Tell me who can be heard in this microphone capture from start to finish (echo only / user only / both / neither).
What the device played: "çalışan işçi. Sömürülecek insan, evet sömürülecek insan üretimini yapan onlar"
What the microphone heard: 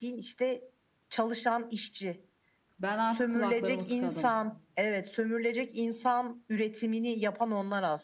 both